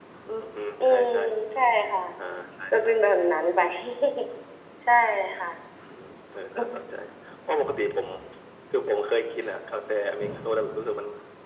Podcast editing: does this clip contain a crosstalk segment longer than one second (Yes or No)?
No